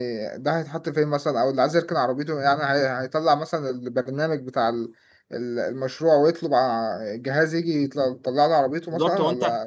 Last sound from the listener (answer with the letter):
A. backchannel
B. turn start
B